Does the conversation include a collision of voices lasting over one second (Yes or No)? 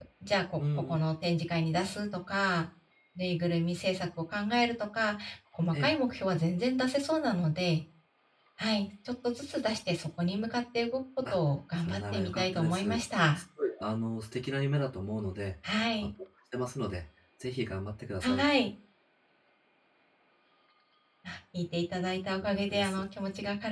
Yes